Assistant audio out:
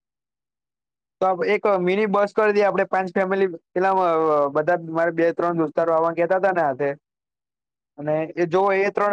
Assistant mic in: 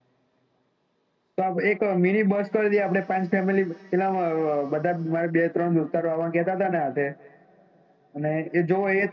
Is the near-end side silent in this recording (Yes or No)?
Yes